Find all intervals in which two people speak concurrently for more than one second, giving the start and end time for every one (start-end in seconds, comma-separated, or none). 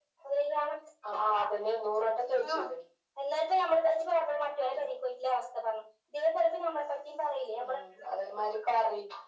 none